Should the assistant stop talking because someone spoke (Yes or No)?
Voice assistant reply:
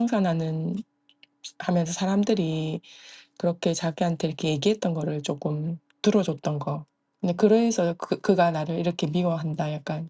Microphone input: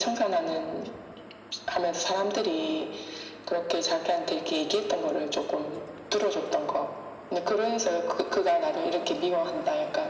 No